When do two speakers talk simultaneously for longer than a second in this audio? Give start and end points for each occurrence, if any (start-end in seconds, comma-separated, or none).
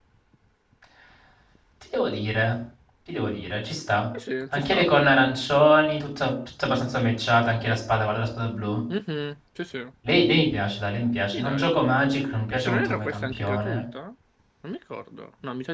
12.5-13.8